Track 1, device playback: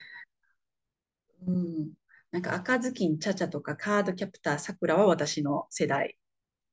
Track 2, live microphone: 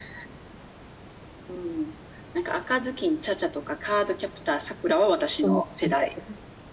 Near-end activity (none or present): present